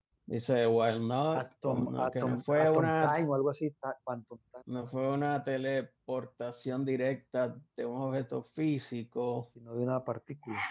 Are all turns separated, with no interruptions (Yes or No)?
No